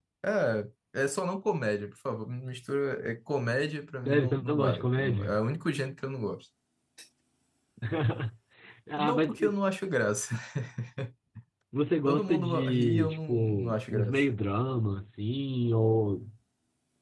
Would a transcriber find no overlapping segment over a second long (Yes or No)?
No